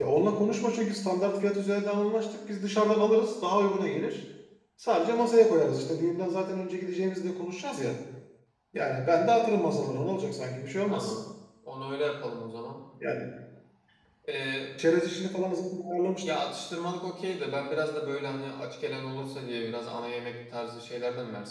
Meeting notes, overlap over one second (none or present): none